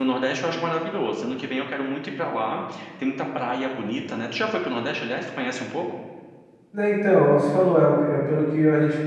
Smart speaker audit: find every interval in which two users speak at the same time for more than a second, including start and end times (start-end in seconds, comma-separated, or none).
none